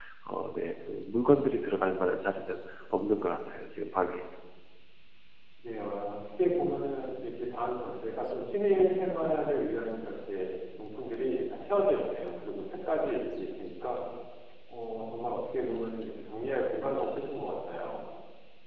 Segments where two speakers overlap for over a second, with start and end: none

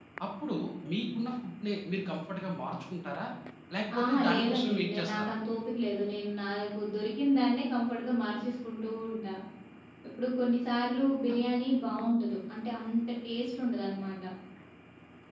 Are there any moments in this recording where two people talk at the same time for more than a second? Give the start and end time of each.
4.0-5.3

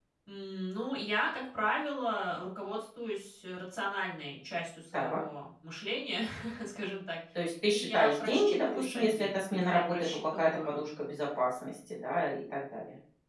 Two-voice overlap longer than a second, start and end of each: 7.7-10.8

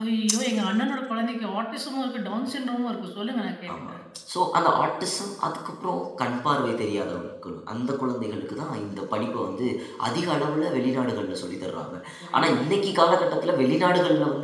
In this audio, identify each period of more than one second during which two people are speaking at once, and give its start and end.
none

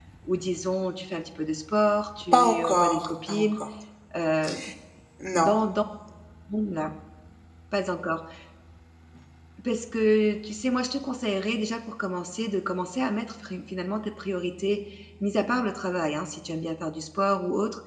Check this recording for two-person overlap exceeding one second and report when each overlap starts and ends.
2.3-3.6

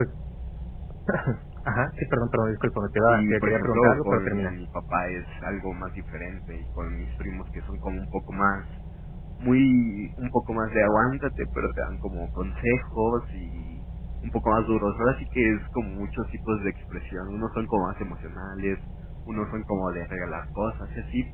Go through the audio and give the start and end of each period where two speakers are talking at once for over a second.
3.1-4.6

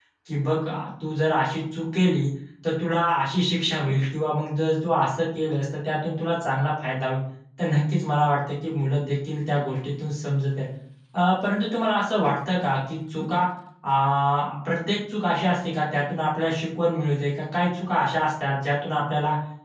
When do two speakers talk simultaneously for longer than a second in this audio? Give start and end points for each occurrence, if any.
none

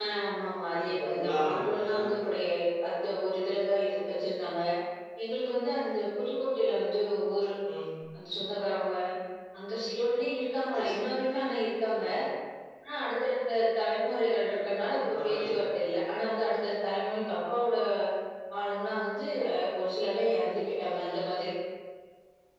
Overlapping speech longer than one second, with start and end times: 0.7-2.0

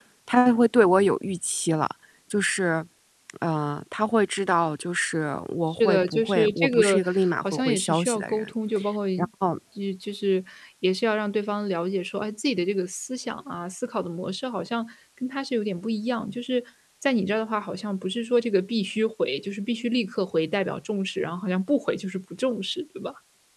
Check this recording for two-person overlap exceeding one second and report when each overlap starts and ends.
5.7-8.5

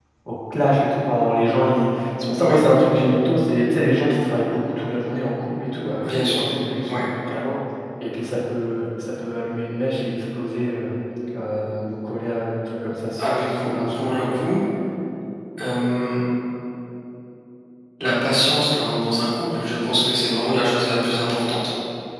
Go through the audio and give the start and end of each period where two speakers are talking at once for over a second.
13.2-14.4

